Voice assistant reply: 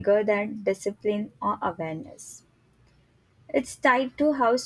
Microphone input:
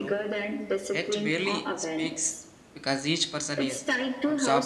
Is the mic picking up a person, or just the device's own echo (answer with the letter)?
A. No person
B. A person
B